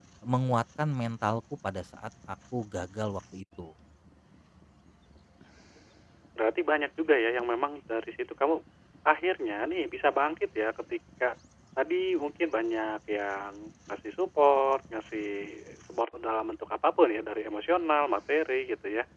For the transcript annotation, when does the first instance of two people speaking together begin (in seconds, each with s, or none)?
none